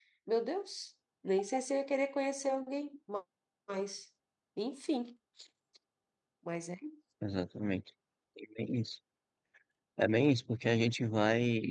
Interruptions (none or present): none